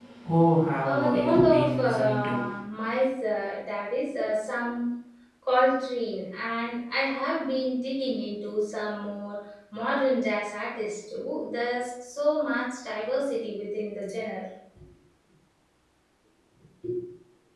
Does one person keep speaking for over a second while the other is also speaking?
Yes, from 0.8 s

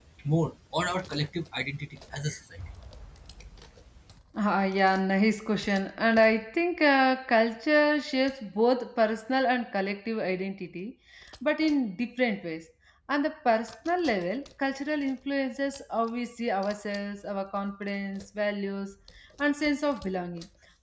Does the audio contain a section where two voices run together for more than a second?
No

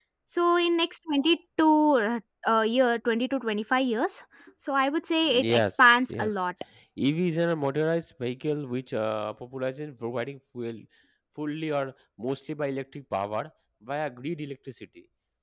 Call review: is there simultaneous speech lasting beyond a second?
Yes, from 5.2 s

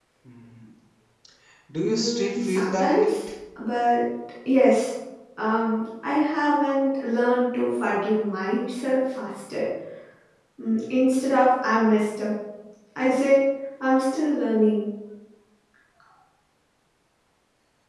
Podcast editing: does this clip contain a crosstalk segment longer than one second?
Yes, from 1.8 s

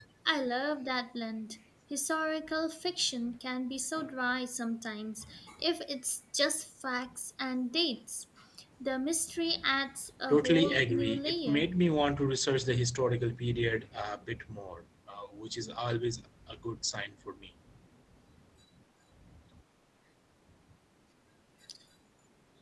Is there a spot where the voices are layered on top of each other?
Yes, from 10.3 s

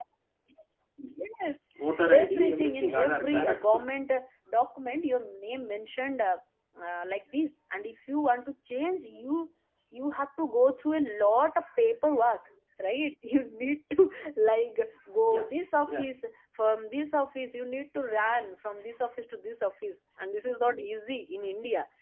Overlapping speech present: Yes, from 2.1 s

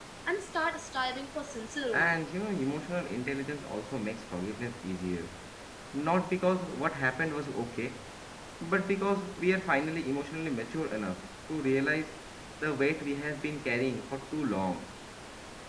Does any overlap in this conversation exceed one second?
No

